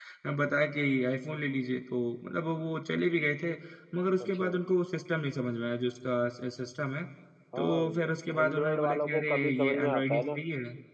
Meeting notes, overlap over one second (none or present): present